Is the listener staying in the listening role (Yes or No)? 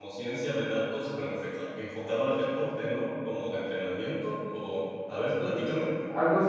No